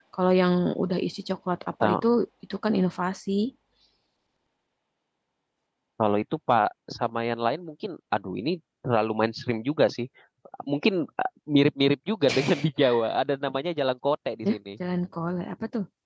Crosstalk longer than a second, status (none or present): none